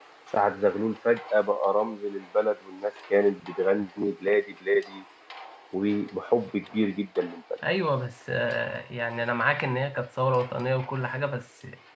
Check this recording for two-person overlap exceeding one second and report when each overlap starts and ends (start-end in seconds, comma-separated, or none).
none